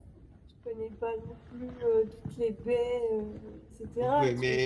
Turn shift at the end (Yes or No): Yes